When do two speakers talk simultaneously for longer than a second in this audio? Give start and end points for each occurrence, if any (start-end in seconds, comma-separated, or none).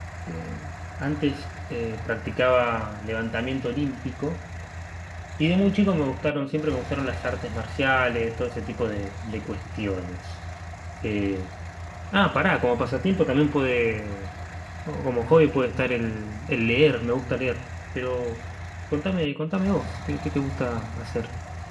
none